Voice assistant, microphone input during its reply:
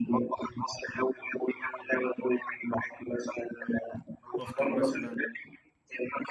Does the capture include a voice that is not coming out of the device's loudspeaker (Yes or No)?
Yes